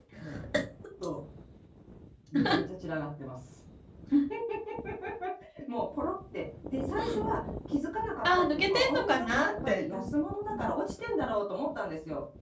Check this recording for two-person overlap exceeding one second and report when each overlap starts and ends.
8.2-10.1

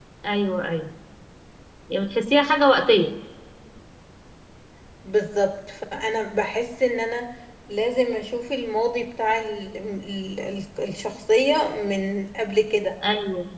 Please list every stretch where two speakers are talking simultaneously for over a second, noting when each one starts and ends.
none

